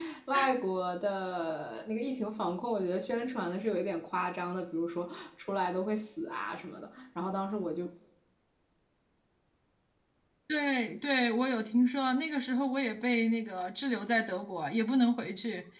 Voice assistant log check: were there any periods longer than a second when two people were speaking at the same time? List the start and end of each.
none

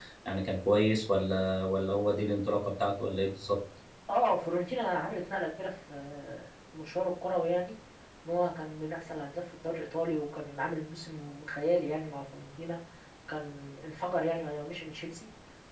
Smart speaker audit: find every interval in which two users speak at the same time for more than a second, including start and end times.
none

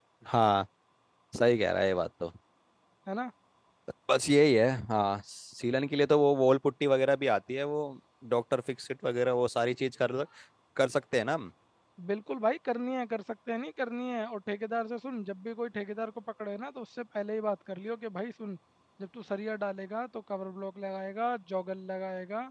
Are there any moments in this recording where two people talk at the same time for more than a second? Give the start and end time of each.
none

